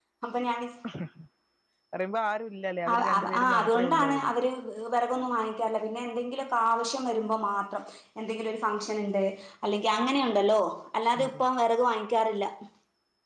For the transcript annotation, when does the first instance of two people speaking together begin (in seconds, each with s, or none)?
2.9 s